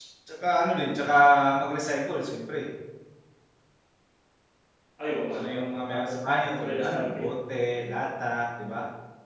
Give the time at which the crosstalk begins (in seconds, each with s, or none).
5.1 s